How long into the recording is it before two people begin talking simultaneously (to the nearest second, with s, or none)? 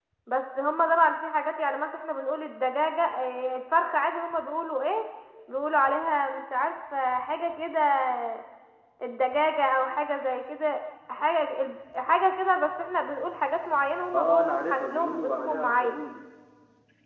14 s